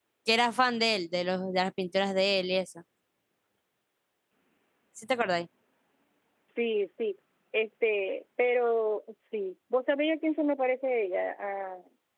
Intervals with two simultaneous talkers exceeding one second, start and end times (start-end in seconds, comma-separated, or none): none